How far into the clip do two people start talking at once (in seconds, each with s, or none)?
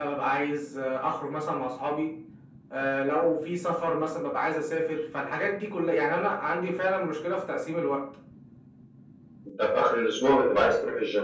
none